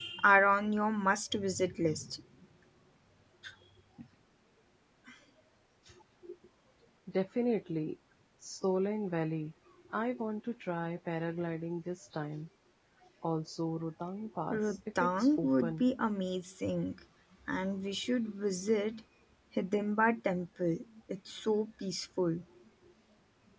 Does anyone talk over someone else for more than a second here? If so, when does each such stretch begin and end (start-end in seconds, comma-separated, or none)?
14.5-15.8